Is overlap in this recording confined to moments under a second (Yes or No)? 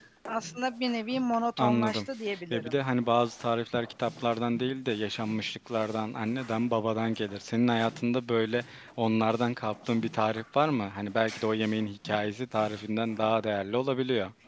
Yes